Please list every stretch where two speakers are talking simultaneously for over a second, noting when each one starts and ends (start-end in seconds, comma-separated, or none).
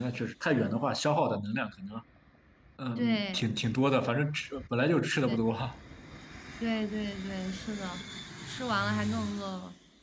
none